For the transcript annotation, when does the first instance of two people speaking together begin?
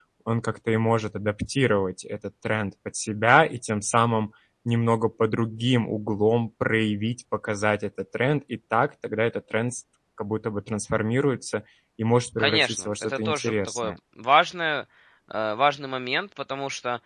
12.4 s

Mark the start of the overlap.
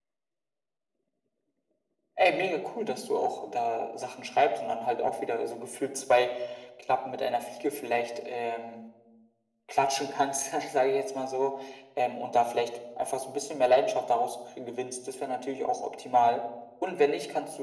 none

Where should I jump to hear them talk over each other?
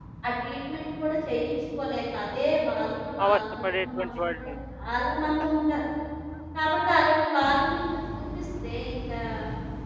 3.2 s

